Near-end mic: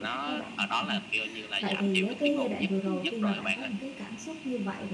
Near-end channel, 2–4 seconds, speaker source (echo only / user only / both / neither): both